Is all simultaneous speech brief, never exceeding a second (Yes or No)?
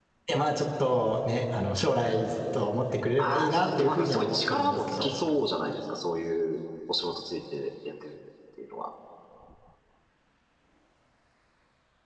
No